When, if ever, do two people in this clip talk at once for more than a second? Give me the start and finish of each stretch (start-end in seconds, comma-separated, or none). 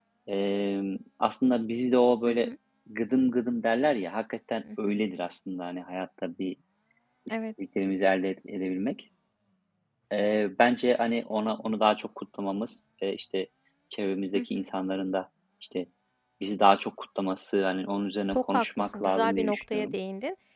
18.3-19.9